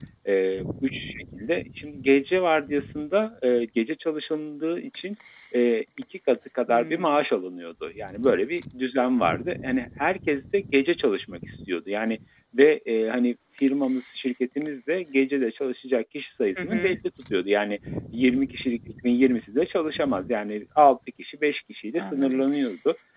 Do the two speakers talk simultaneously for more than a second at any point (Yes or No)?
No